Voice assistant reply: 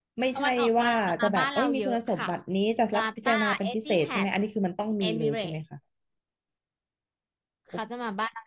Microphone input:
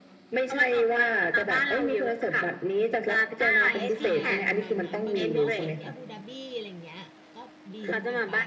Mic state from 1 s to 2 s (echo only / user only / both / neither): echo only